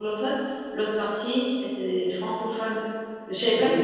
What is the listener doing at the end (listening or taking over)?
listening